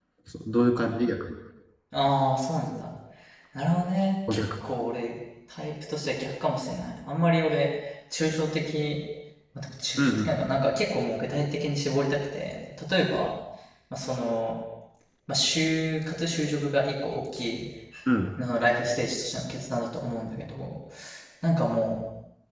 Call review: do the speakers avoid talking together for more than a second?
Yes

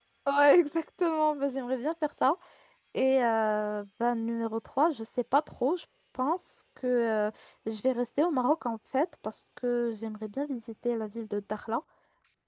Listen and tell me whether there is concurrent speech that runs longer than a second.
No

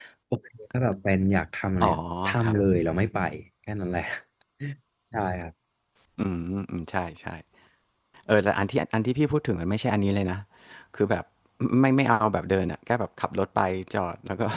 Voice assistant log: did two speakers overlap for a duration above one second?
No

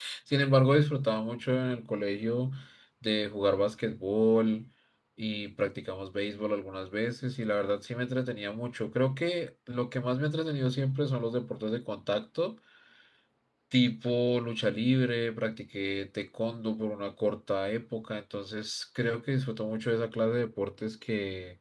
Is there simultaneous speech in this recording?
No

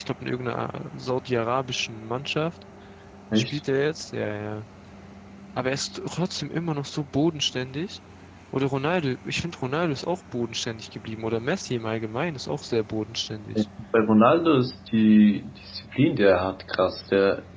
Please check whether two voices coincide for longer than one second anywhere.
No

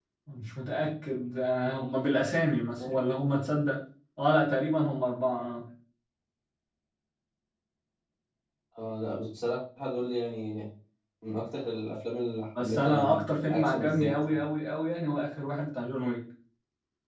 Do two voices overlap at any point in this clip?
Yes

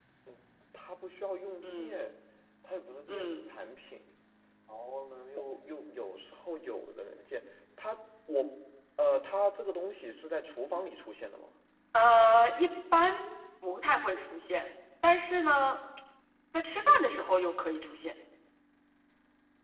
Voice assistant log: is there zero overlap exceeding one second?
Yes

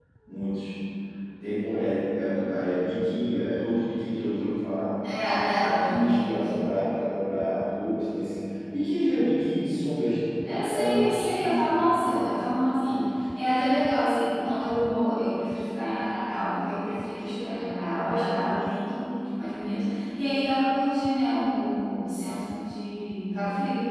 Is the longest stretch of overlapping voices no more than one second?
No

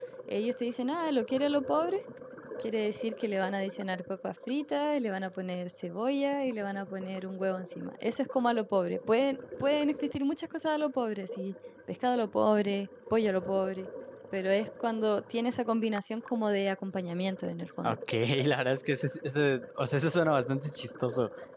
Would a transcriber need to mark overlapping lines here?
No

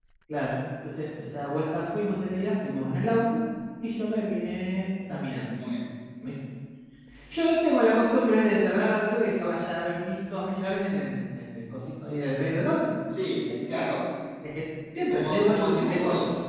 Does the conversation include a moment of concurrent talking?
Yes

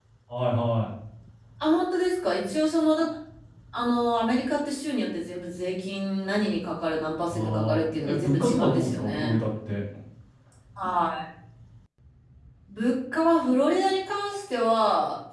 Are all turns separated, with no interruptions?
No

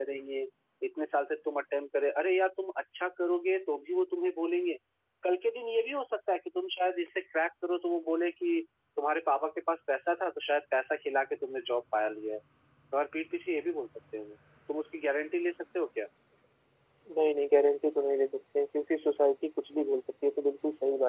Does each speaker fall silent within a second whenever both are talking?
Yes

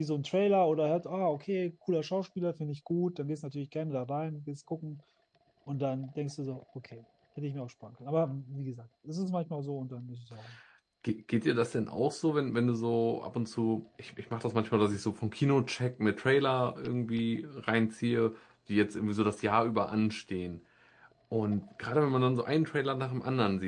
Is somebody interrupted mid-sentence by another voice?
No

